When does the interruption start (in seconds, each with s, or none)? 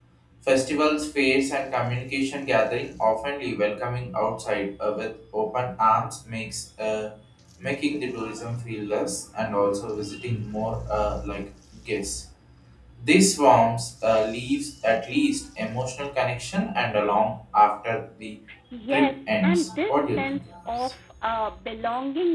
18.9 s